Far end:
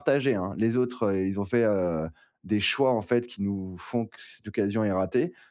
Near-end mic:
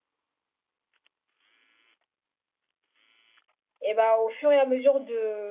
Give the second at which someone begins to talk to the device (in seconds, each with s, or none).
3.8 s